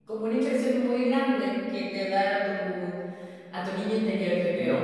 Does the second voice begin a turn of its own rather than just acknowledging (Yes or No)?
Yes